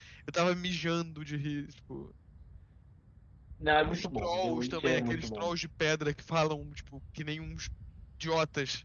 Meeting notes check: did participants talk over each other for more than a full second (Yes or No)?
Yes